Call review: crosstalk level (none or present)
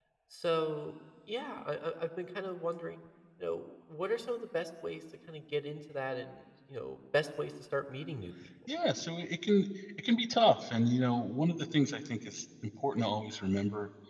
none